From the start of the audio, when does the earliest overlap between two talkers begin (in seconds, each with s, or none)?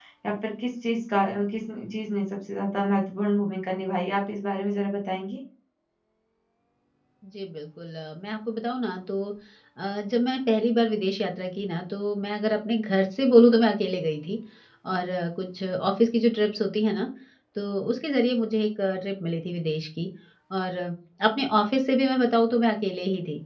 none